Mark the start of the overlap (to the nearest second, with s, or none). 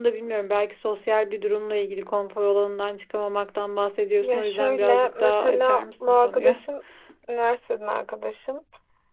4 s